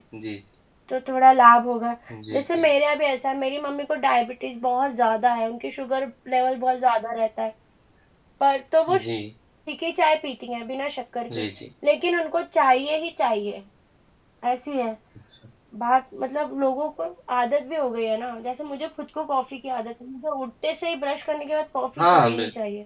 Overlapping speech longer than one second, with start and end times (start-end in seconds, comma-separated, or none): none